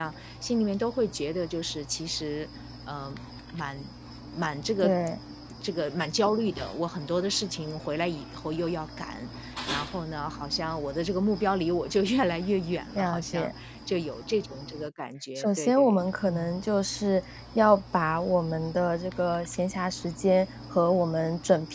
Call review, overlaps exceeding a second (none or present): present